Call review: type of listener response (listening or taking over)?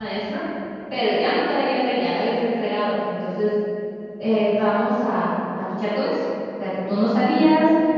listening